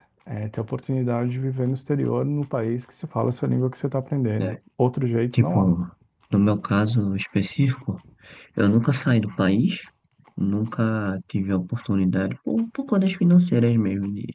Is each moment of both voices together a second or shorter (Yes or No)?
Yes